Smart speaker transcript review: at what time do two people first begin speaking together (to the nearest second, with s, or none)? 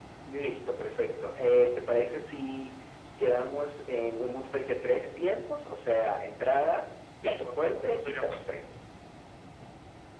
7 s